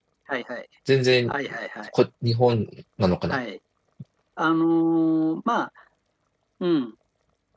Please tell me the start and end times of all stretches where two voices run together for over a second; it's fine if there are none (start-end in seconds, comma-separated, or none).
none